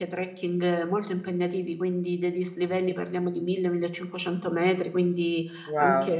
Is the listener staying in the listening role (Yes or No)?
Yes